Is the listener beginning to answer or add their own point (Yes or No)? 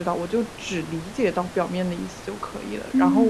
Yes